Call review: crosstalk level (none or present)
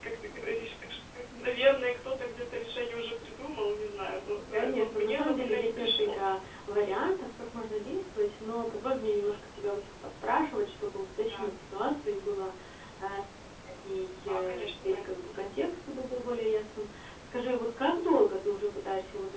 present